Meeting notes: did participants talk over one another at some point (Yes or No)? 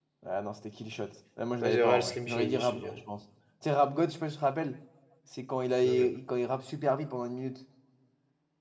Yes